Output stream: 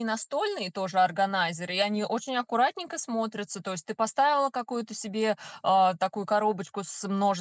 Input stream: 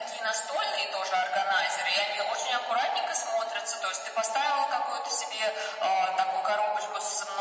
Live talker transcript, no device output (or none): none